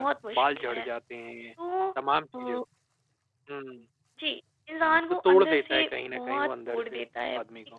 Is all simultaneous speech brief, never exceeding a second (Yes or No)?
No